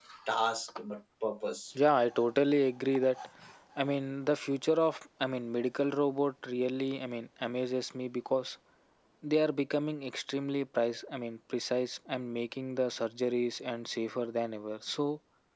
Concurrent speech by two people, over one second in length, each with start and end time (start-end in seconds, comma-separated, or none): none